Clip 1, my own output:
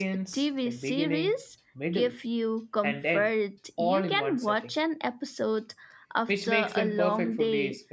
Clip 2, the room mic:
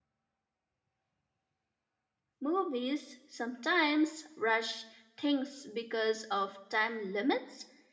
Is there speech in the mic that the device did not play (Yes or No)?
Yes